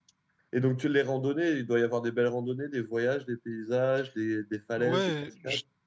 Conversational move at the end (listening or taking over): taking over